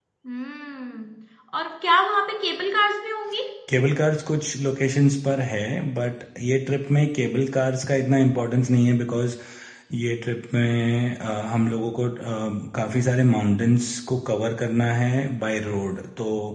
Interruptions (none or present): none